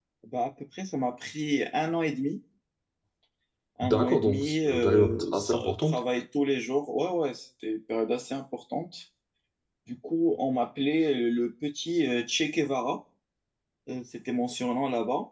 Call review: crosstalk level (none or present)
present